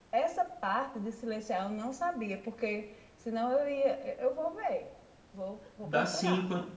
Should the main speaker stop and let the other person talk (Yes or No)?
Yes